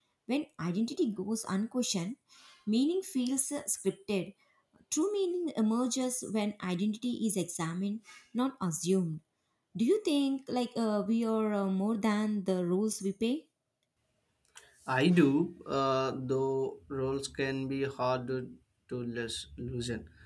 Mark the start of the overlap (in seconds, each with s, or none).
none